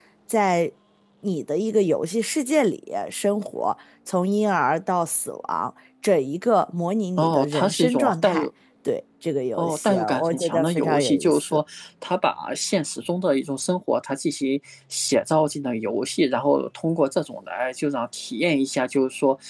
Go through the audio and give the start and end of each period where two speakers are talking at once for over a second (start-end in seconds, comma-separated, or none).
7.2-8.5, 9.5-11.6